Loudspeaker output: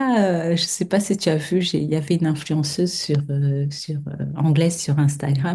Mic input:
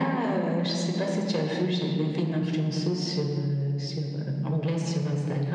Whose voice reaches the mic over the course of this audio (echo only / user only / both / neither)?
echo only